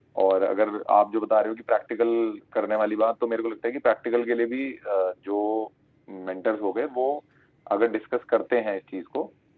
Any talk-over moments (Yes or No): No